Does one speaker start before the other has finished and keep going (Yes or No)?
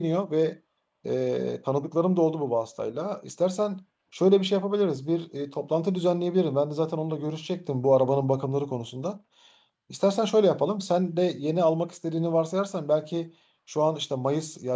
No